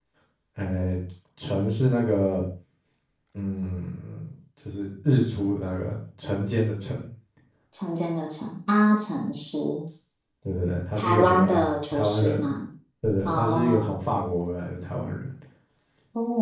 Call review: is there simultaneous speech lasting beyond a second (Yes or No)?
Yes